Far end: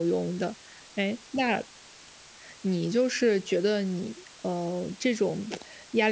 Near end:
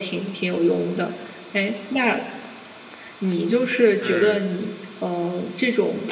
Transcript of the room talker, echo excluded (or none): 嗯。